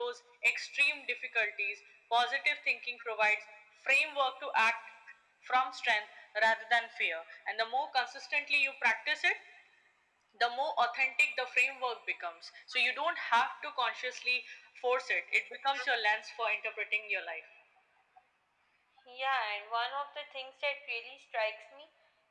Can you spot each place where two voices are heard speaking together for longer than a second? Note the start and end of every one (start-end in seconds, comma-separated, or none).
none